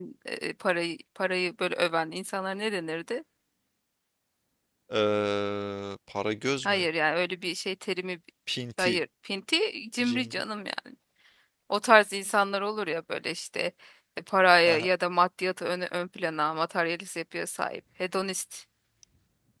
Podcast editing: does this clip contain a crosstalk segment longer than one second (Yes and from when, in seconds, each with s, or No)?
No